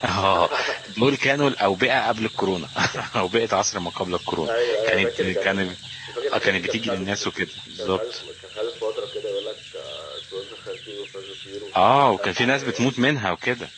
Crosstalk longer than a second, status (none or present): present